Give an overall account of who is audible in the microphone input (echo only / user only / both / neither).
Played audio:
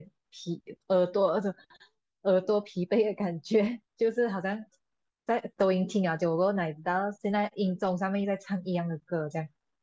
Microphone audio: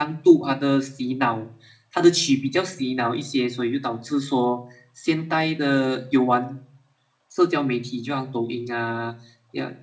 user only